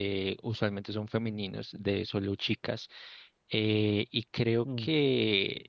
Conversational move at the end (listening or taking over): listening